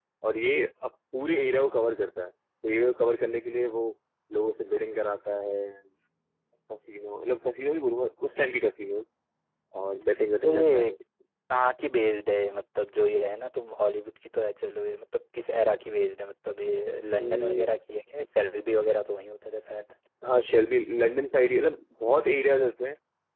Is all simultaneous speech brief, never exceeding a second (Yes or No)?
Yes